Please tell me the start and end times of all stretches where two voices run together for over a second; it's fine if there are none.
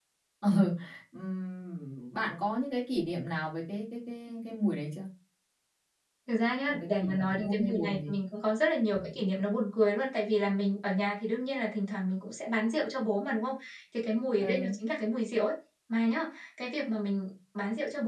6.7-8.0

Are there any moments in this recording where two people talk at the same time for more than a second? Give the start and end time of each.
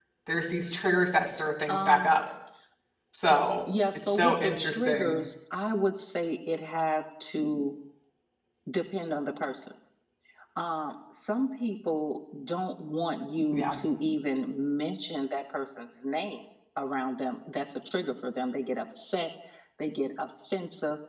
3.9-5.2

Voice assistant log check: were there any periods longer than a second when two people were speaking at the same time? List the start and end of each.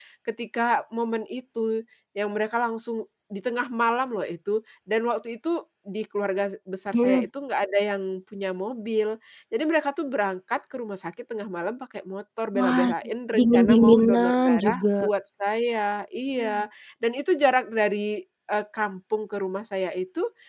13.4-14.9

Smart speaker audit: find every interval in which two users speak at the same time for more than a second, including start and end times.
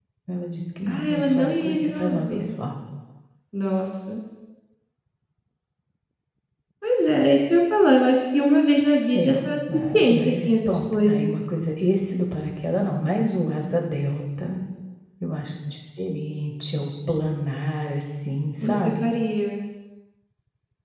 0.9-2.5, 9.7-11.3

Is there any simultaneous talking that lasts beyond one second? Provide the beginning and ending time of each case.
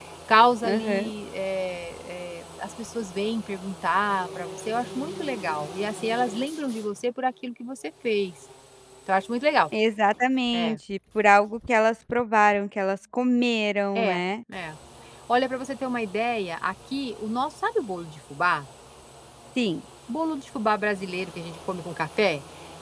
none

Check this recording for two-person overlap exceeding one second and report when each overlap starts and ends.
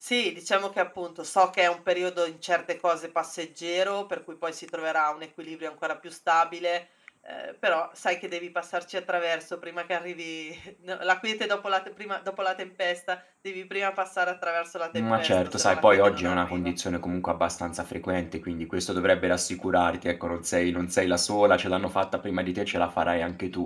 14.9-16.7

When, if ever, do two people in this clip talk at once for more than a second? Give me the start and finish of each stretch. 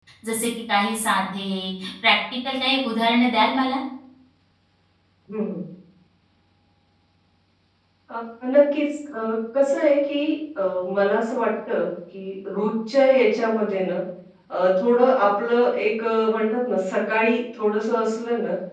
none

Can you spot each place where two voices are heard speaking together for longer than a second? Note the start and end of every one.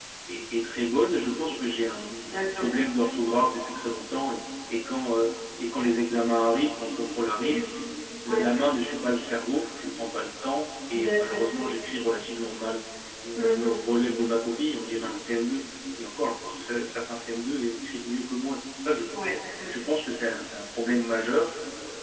none

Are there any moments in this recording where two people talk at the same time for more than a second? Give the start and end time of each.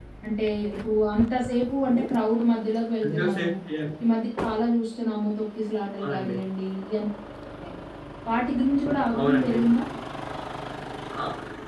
none

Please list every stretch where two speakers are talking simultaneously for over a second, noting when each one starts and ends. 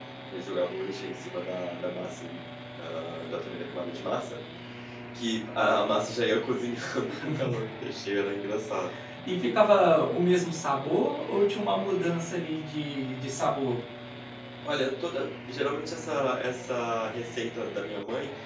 none

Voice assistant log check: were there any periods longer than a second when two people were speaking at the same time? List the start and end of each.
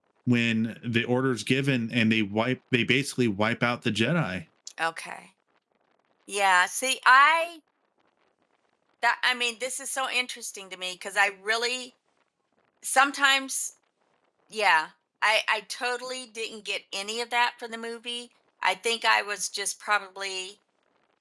none

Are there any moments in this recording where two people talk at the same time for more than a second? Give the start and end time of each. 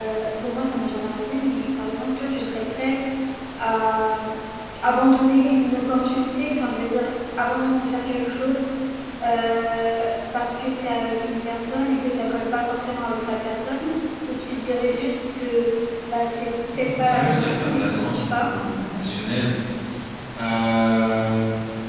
16.8-18.6

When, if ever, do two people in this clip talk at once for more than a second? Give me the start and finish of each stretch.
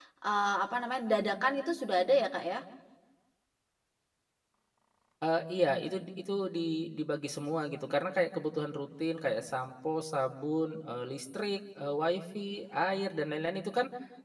none

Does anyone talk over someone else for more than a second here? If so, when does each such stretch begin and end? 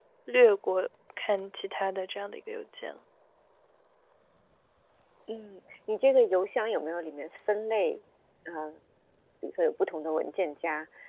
none

